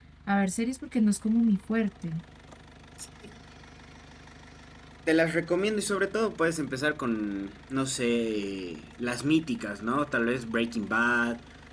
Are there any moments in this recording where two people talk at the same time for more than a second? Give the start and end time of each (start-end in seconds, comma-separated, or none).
none